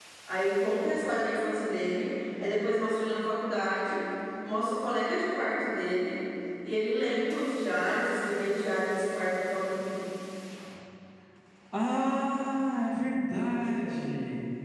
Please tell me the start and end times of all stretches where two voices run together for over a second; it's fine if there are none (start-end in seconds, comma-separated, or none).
none